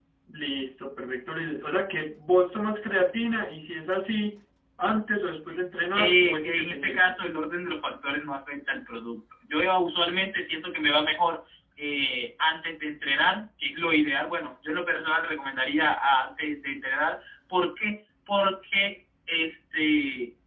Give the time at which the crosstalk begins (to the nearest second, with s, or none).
6 s